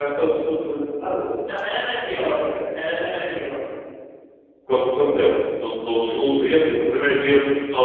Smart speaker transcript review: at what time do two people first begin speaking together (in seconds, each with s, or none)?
none